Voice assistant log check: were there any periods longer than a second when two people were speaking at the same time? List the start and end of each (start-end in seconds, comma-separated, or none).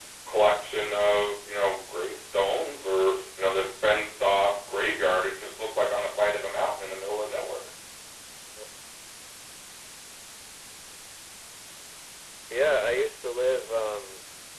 none